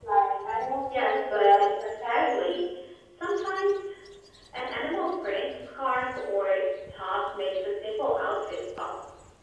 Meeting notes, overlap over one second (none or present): present